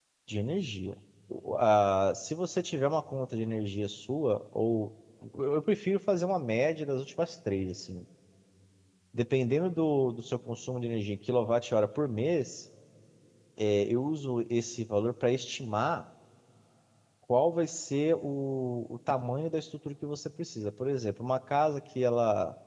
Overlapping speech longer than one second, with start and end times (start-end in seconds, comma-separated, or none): none